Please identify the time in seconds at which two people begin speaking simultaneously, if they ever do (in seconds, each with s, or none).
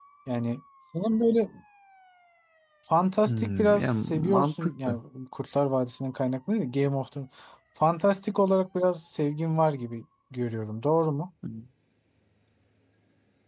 3.3 s